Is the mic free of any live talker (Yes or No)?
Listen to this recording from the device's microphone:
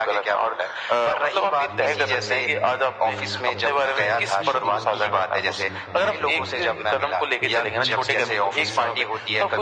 No